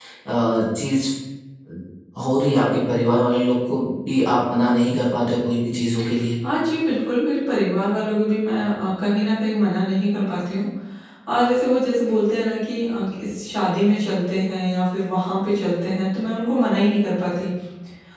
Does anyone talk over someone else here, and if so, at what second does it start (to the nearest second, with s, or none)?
none